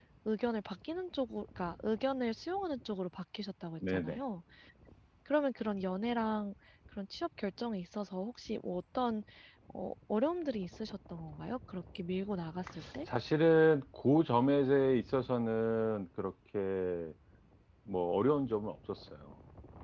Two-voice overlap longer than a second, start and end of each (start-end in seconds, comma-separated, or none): none